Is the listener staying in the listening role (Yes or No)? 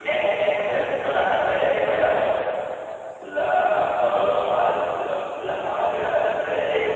No